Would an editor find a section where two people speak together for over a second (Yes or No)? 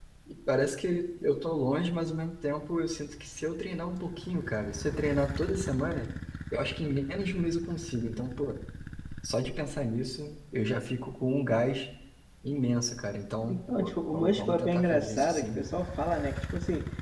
Yes